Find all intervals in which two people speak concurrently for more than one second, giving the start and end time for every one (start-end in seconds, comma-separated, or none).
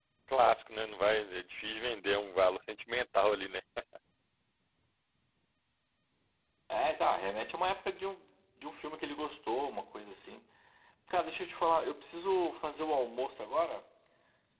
none